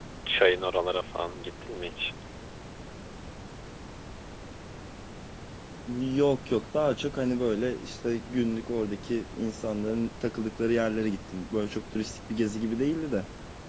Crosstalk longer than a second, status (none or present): none